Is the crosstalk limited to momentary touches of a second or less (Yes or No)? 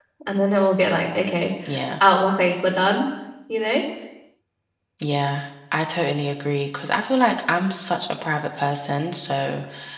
Yes